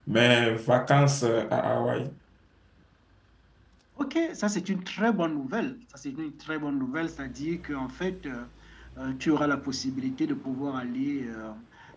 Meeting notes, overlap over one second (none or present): none